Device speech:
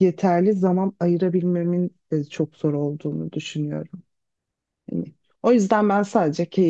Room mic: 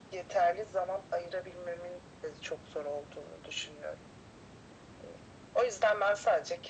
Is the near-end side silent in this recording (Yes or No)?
Yes